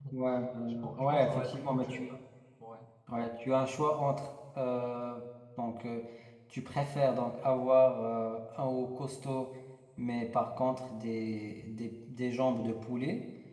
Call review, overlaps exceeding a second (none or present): present